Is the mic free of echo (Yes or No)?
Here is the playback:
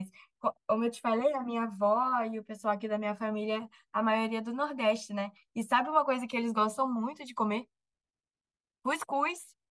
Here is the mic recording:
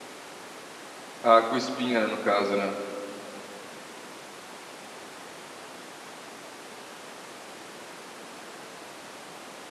Yes